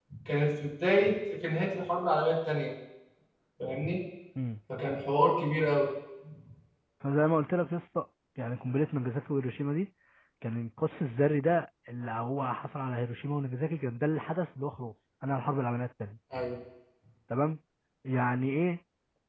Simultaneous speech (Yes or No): No